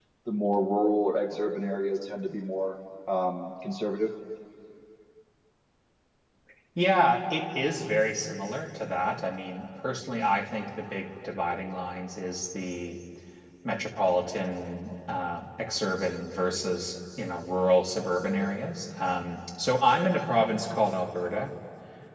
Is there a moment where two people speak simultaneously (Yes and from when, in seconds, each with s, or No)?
No